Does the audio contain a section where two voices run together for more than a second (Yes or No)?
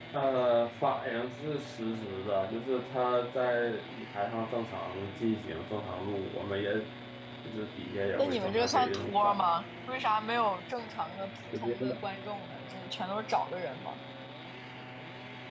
Yes